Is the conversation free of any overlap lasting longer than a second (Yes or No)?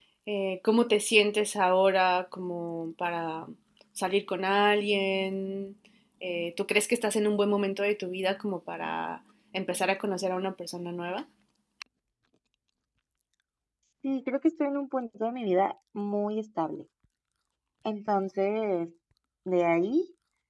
Yes